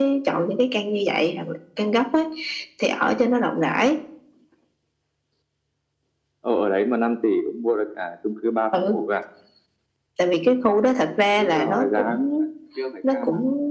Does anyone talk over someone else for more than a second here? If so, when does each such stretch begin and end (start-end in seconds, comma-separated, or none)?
11.1-12.3